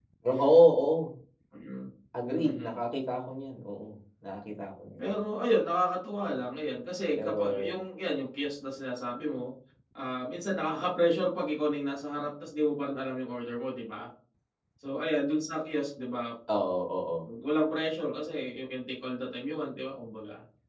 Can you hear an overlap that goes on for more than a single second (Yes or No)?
No